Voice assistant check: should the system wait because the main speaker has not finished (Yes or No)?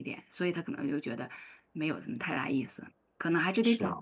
Yes